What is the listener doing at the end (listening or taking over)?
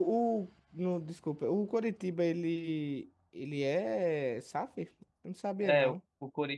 taking over